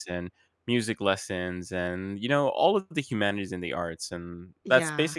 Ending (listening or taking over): listening